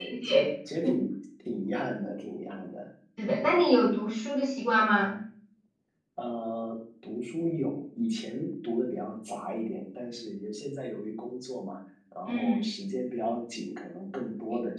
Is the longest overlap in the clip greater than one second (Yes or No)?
No